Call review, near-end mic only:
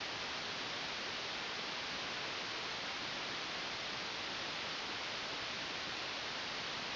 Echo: none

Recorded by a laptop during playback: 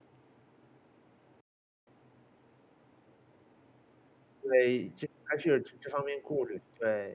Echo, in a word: none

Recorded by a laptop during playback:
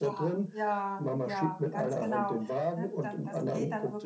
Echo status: present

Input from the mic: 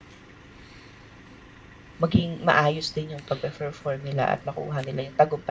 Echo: none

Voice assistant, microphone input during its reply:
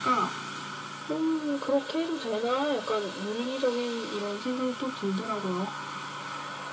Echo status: present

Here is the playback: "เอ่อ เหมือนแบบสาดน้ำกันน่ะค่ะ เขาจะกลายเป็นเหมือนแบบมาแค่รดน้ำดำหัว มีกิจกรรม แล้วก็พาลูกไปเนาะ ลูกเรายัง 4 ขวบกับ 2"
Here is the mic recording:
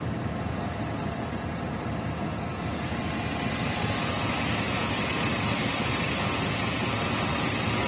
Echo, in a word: none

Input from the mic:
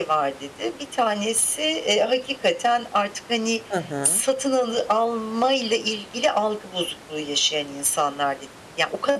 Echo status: present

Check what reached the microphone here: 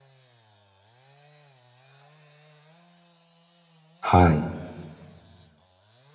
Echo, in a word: none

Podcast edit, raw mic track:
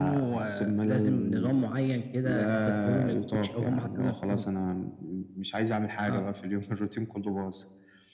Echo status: present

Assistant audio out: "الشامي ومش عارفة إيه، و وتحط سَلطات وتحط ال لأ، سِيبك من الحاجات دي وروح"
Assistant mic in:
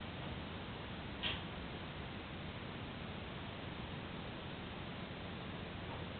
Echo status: none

